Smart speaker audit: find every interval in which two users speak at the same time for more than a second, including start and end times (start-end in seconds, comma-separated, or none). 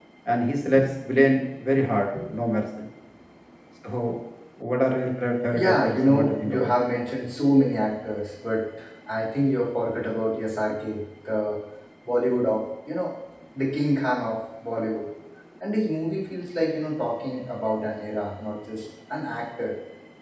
5.5-6.7